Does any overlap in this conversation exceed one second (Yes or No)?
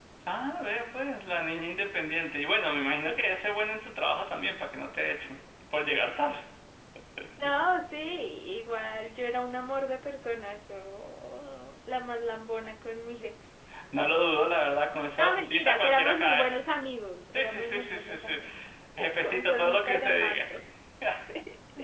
Yes